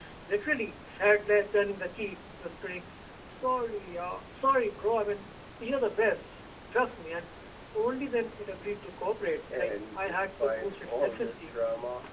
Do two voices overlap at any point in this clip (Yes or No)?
Yes